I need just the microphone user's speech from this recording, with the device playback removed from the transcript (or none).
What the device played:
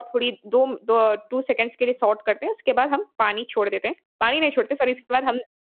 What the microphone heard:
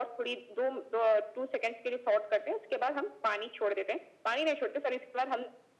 none